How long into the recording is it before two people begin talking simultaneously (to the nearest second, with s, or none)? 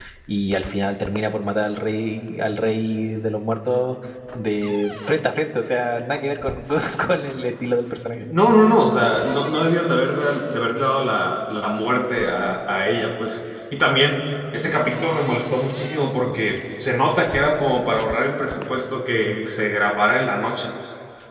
none